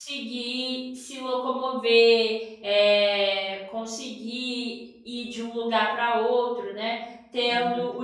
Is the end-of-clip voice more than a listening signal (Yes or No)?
No